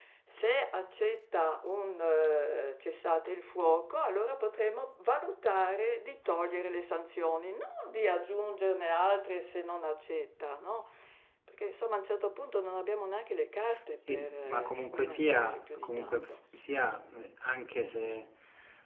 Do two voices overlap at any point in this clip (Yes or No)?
Yes